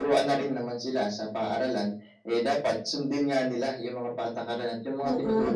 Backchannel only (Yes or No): No